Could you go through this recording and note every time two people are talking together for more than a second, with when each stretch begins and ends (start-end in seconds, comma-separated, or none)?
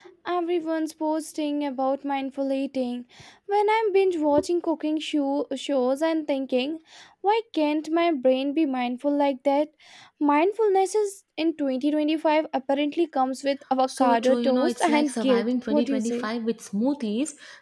14.0-16.3